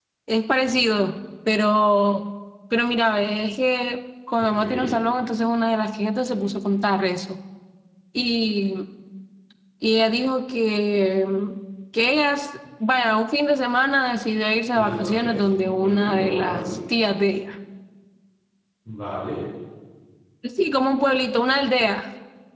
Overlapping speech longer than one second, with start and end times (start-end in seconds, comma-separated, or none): 14.7-16.7